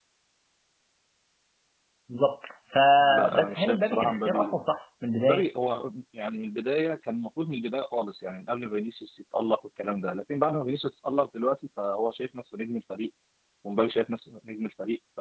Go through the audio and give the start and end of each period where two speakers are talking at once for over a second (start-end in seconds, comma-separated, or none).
3.0-4.6